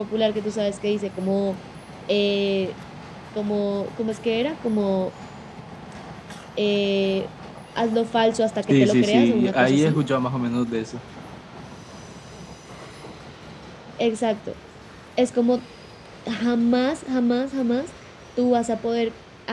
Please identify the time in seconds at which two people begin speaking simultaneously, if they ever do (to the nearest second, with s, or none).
9 s